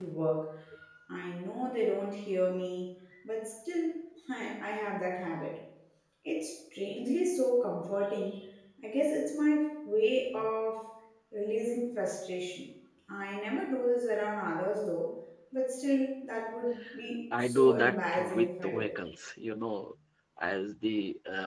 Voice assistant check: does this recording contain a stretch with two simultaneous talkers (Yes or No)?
Yes